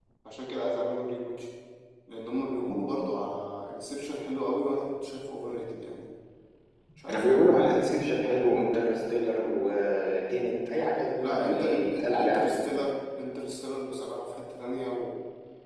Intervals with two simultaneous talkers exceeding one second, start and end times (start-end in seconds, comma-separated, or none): 11.2-12.7